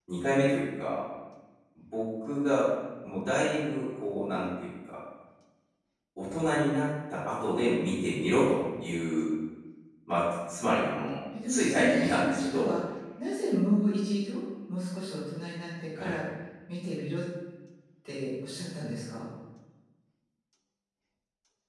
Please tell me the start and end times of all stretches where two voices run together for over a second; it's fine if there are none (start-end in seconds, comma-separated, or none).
11.5-12.7